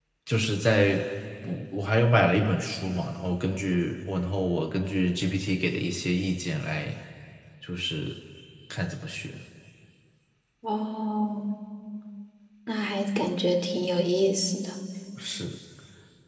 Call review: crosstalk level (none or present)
none